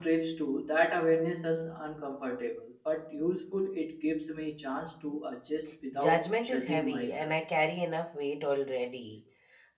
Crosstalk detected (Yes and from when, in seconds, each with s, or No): Yes, from 5.9 s